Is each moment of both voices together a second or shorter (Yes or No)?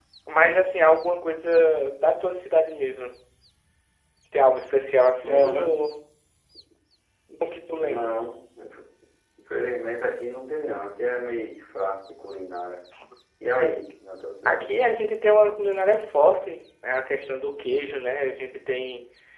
Yes